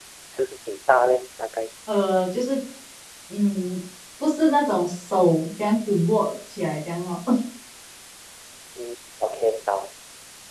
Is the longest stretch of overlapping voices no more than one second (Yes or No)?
Yes